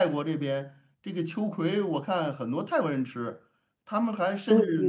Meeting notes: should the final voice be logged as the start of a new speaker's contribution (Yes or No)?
No